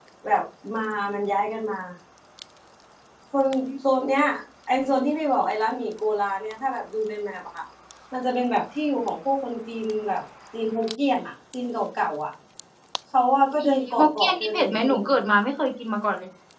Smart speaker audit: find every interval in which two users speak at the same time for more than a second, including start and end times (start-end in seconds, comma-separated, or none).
13.6-15.0